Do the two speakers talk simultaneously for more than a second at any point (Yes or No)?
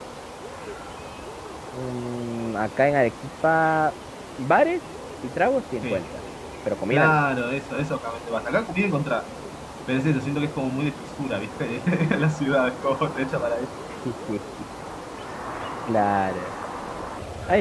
No